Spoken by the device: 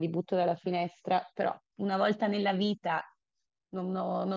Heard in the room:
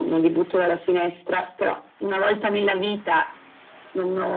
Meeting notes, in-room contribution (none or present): none